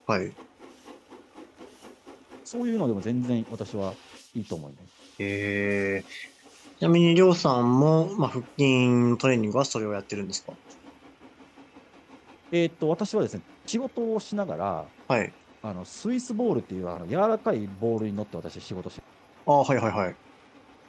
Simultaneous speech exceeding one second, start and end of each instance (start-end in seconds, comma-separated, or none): none